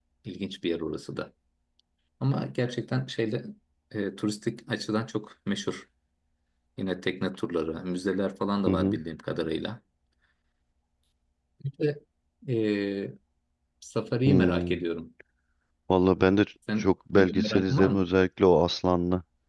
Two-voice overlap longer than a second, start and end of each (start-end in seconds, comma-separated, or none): 16.8-18.1